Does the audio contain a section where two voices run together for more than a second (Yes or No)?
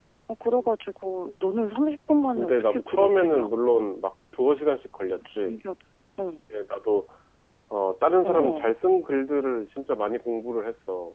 Yes